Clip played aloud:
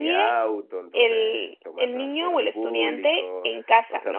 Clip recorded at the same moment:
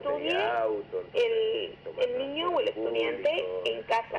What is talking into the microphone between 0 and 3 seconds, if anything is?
echo only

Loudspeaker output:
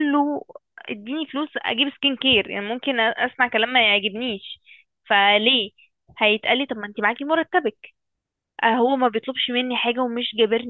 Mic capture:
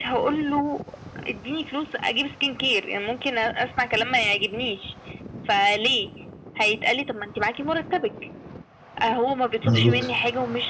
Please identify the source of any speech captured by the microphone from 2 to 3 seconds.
echo only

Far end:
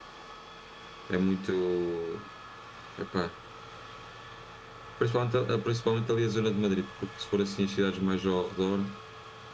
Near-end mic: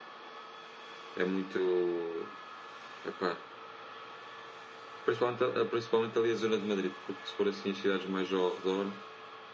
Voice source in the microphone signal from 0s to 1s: neither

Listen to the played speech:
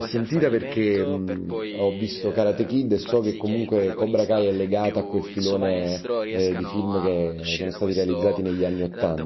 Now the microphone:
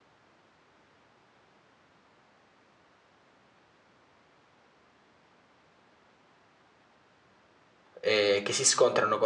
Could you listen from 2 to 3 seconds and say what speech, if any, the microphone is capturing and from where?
neither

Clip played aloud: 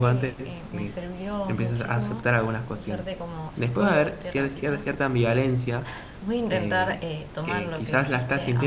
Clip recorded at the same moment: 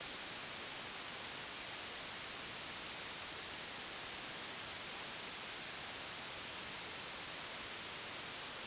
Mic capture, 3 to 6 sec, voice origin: neither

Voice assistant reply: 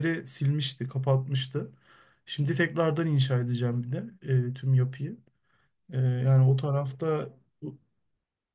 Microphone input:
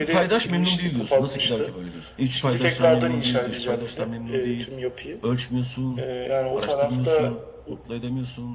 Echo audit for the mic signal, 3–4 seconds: both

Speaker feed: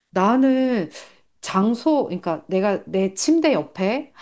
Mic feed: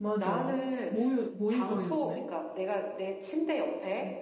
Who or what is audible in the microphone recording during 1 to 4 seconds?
both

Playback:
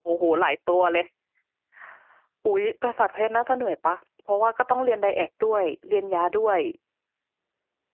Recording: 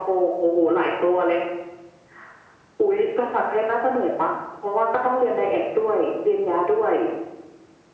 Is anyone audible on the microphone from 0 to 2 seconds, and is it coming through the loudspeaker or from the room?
echo only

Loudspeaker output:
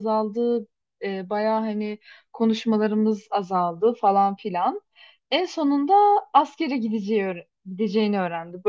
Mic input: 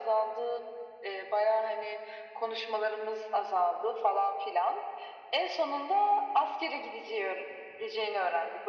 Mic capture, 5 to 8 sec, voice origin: echo only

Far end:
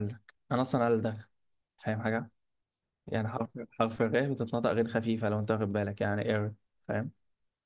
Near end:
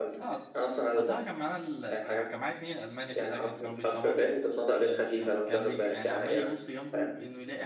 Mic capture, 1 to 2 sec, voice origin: both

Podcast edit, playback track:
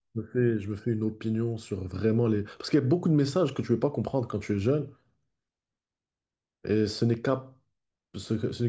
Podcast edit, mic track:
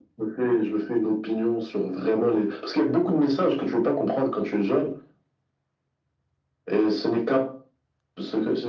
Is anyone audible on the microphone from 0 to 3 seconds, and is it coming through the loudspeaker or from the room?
echo only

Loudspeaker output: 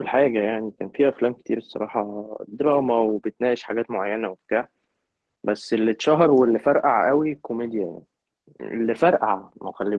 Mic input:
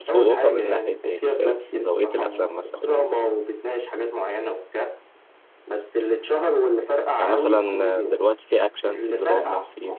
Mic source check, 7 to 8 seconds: both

